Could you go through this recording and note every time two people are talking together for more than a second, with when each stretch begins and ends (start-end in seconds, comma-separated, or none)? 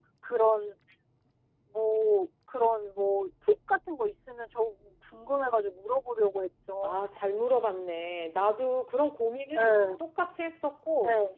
none